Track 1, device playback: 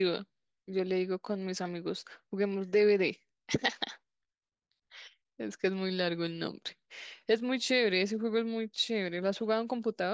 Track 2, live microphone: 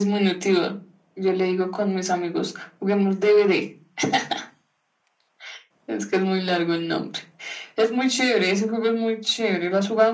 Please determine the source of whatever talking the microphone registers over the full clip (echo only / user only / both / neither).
echo only